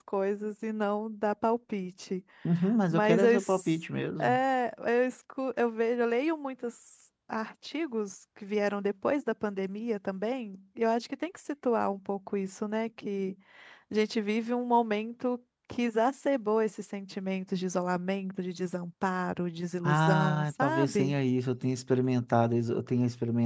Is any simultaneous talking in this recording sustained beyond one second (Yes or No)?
Yes